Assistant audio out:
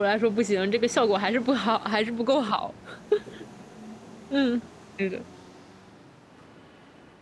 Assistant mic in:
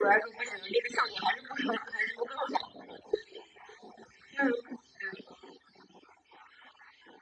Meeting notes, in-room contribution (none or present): none